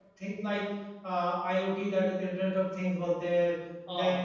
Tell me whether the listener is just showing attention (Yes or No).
Yes